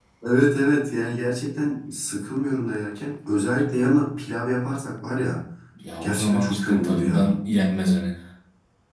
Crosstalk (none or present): present